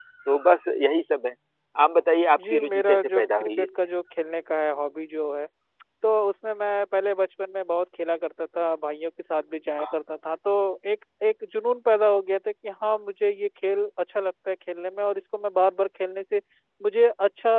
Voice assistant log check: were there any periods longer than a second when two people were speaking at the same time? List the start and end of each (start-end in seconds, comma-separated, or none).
2.4-3.7